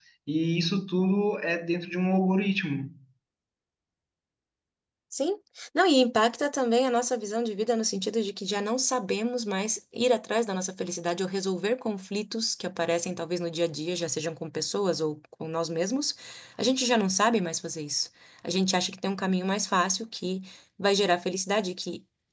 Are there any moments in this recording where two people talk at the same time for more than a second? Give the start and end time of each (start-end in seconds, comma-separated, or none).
none